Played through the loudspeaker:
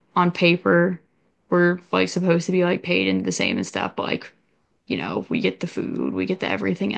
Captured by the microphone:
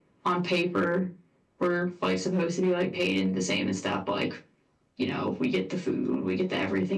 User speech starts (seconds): none

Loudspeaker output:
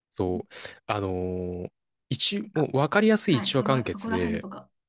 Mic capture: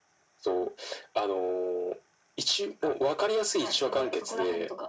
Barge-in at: none

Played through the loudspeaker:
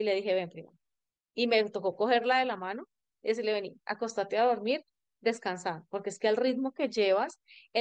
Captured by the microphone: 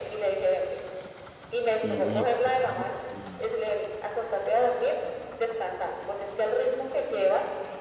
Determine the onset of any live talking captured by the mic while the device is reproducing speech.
2 s

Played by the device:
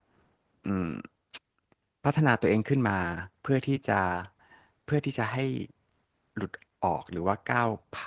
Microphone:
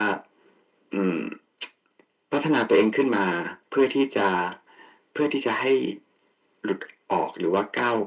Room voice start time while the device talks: none

